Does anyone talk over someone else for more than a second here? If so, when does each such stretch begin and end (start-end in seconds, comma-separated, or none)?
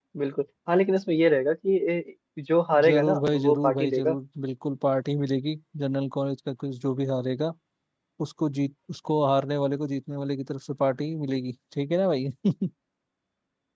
2.8-4.2